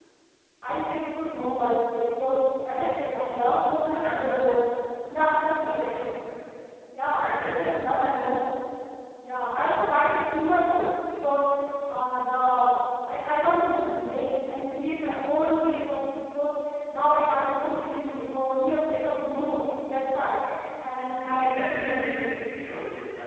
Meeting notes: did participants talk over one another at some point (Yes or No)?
Yes